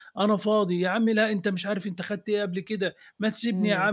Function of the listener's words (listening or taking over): listening